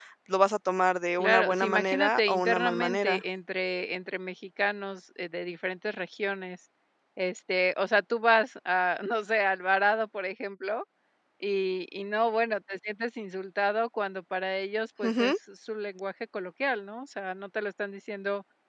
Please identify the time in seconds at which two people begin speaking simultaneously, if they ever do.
1.2 s

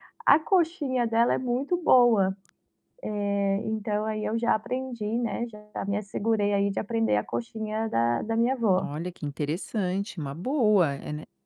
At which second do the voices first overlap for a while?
none

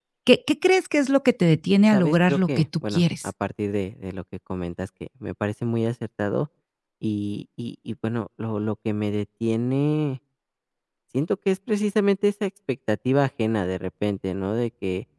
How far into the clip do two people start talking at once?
1.9 s

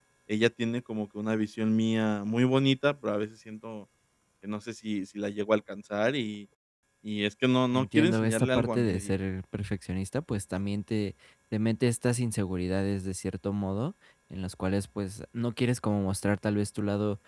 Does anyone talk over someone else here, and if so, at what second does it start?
7.7 s

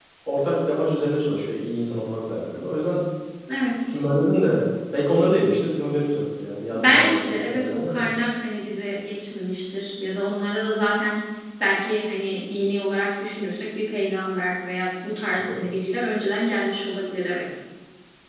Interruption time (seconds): 6.8 s

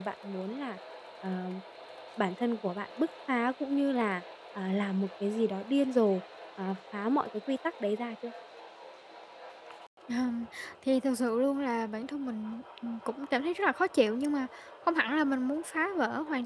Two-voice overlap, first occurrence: none

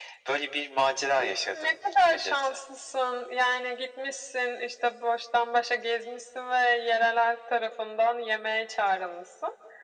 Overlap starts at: 1.1 s

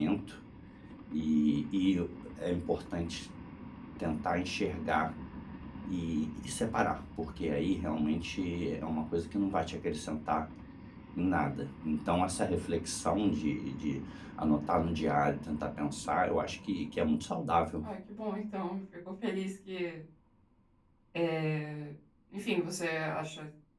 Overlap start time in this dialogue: none

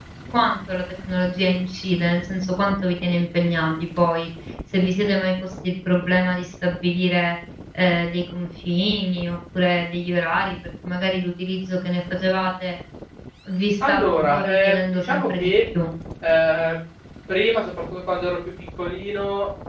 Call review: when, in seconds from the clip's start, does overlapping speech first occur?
13.9 s

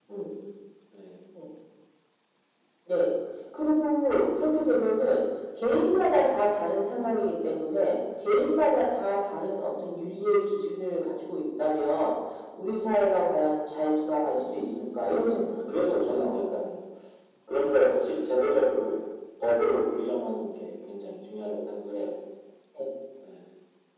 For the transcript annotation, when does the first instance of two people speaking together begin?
14.3 s

